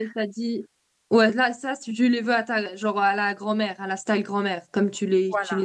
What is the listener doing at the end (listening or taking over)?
taking over